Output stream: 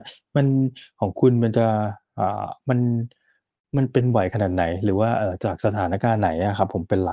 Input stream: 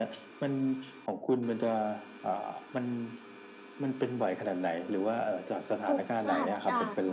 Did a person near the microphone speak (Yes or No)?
Yes